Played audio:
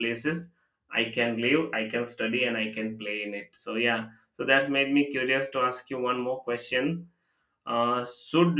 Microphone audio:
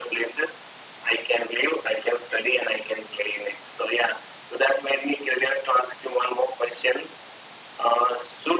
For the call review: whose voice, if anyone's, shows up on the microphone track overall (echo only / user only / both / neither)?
echo only